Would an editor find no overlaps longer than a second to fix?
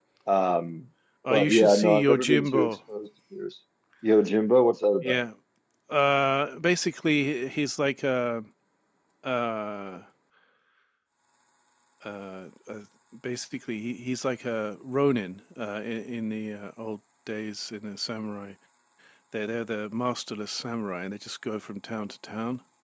No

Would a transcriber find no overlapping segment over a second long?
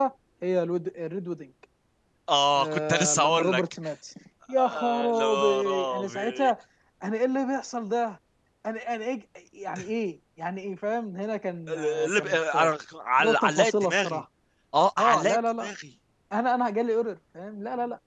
No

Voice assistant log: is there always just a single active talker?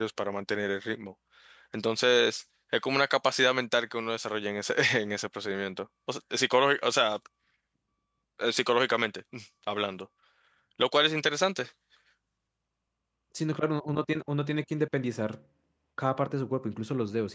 Yes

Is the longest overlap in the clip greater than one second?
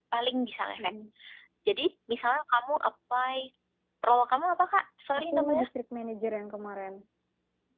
No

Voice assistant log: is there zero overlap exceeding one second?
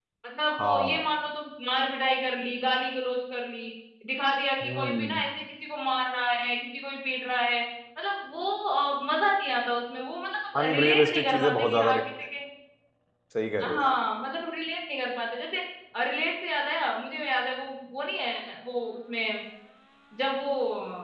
No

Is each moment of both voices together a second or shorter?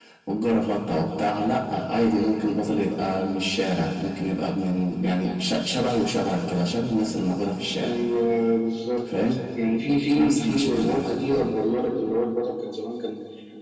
No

